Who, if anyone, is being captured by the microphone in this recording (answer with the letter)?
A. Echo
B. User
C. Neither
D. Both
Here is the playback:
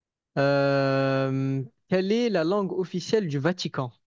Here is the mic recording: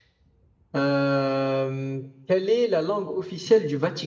A